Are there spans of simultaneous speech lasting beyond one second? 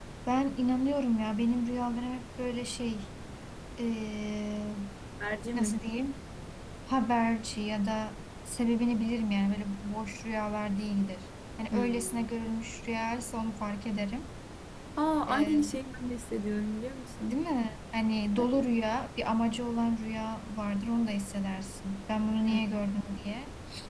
No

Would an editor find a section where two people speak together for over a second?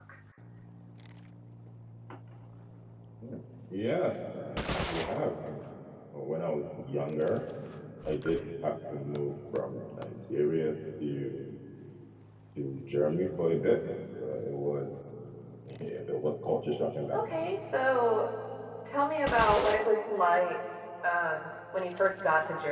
No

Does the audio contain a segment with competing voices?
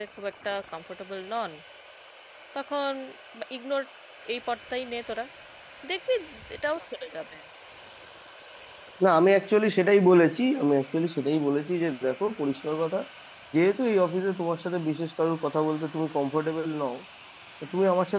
No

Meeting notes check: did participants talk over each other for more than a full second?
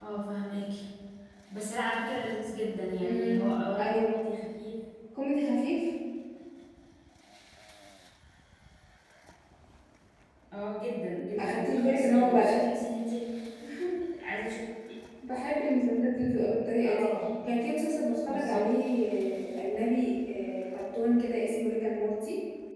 Yes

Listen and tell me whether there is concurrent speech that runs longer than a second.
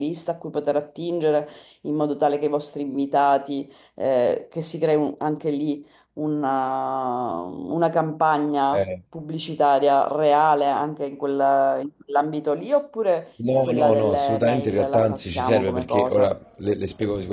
Yes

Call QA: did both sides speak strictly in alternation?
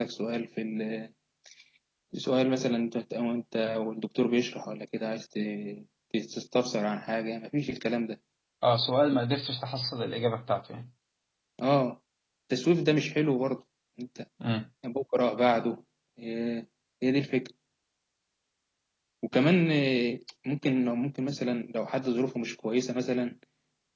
Yes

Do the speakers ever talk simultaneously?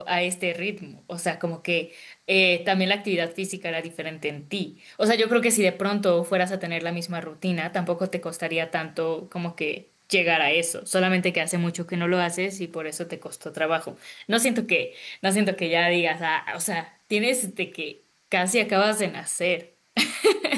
No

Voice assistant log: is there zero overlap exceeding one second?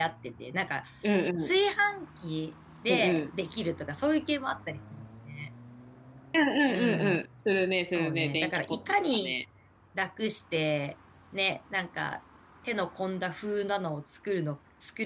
No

